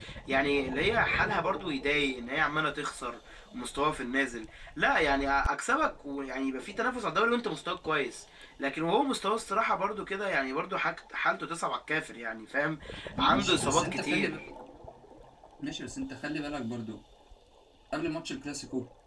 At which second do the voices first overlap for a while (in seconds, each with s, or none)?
13.2 s